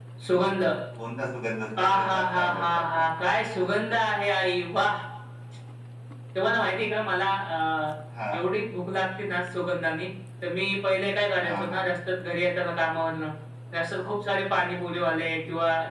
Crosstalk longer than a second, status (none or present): present